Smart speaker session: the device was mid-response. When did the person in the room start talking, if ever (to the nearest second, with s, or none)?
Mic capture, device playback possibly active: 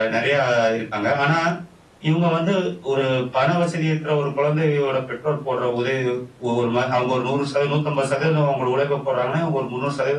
none